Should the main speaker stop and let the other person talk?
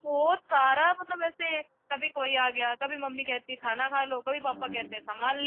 No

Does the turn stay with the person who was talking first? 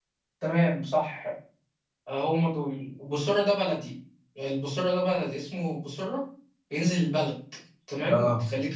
Yes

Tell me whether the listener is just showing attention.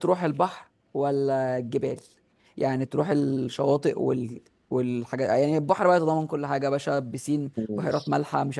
Yes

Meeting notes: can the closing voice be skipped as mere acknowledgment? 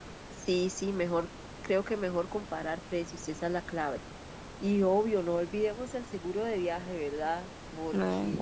Yes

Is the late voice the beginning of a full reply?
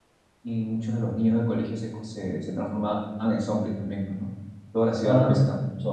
No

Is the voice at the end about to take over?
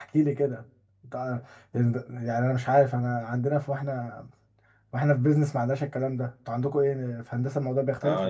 Yes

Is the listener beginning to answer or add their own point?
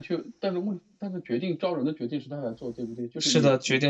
Yes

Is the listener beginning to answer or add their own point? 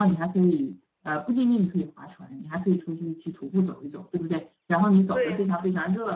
No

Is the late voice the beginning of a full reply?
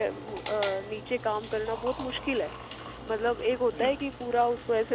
No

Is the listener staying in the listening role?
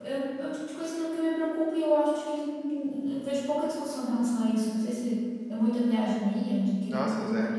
Yes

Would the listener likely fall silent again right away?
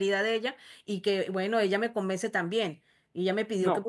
Yes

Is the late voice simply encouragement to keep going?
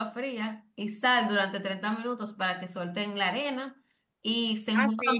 No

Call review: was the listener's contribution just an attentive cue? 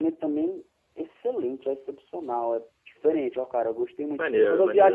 Yes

